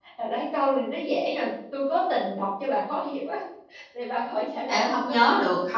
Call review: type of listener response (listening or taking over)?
taking over